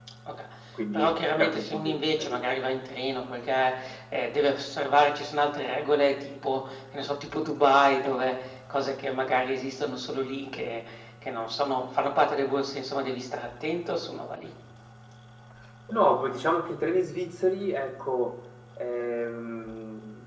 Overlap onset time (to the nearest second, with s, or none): 1 s